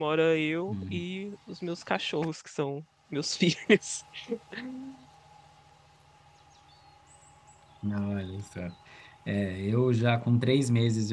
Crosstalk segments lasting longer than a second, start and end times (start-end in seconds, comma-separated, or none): none